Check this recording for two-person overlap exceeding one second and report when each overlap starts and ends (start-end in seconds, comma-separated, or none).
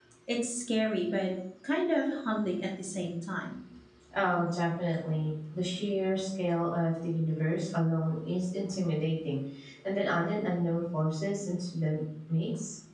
none